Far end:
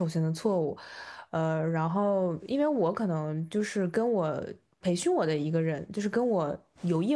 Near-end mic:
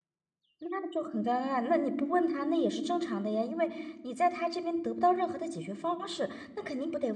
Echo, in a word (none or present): none